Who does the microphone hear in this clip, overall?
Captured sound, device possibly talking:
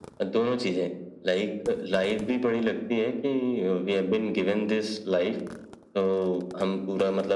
echo only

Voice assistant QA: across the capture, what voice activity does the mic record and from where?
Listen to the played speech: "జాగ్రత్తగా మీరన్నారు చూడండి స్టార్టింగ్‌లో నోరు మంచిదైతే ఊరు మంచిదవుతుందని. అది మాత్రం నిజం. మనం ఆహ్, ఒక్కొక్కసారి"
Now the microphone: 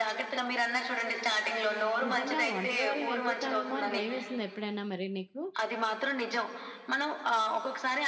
both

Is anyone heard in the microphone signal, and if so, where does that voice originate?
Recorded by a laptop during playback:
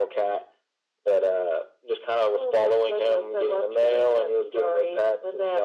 echo only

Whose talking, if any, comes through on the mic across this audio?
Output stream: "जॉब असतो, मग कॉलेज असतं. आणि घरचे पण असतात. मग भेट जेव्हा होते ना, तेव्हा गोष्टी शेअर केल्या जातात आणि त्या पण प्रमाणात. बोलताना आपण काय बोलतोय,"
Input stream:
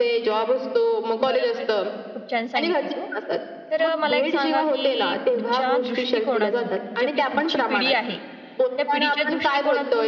both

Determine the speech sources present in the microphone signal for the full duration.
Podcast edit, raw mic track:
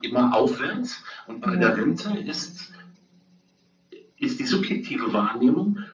both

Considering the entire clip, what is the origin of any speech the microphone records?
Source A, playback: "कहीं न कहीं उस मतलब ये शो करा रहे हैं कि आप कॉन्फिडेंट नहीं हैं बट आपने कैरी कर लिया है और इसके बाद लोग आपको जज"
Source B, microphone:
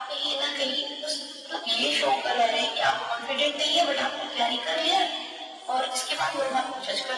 echo only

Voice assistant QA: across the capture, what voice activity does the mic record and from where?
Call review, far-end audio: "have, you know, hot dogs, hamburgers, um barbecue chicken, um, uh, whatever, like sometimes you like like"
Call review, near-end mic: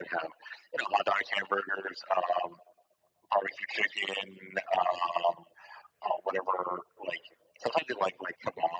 echo only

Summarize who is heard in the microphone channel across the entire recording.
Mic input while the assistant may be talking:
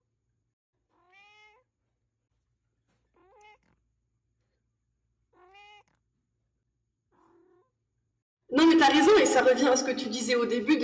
user only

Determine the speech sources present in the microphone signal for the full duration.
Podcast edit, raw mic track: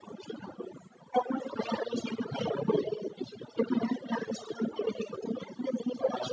echo only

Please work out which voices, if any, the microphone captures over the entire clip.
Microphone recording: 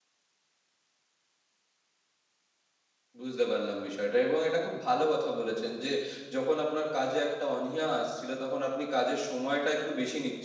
user only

